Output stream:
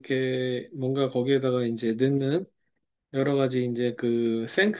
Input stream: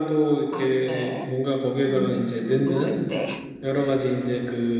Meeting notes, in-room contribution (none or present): present